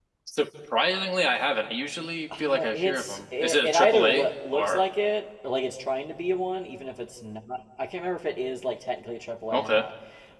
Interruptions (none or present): present